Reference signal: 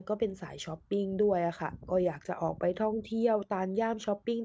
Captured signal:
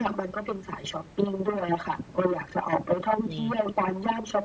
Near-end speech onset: 3.3 s

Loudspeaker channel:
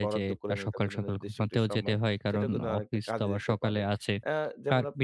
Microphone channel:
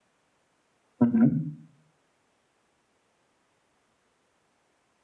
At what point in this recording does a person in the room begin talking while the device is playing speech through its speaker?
1.0 s

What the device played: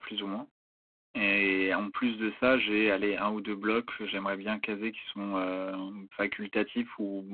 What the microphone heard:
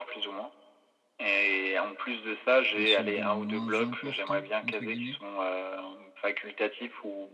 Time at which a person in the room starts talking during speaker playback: 2.7 s

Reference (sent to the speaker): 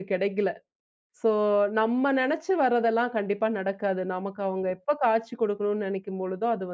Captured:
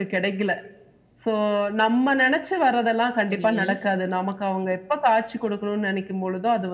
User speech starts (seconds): 3.3 s

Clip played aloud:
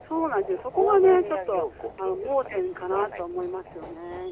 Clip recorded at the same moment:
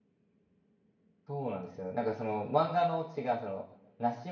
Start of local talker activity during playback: 1.3 s

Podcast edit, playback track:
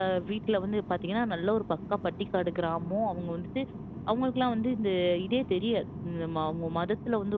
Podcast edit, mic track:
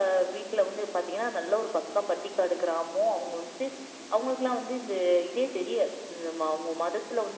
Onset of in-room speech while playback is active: none

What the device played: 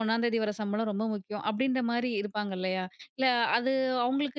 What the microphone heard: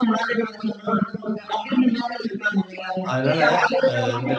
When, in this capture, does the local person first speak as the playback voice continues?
3.1 s

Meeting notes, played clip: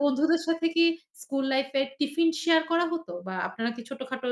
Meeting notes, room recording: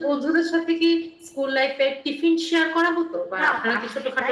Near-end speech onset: 3.4 s

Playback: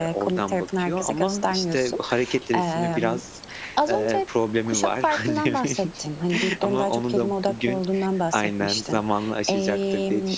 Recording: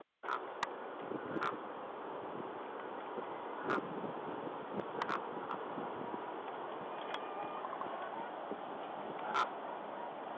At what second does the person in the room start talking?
none

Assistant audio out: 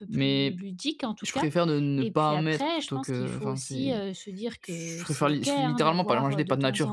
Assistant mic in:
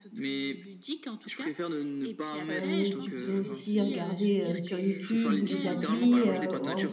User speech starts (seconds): 2.5 s

